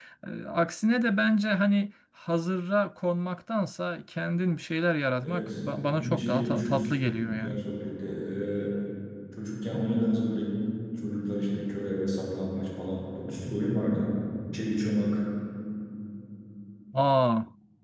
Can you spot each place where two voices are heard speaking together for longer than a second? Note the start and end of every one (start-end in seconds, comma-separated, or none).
5.2-7.6